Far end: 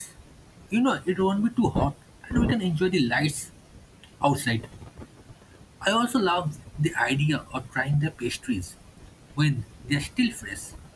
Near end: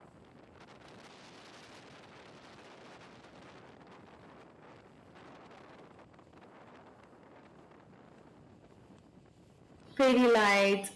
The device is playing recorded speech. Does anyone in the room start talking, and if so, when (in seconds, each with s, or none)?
10.0 s